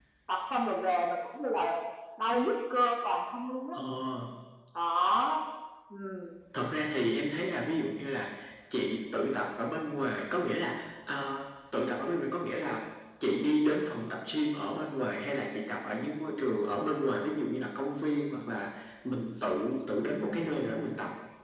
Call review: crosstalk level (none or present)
none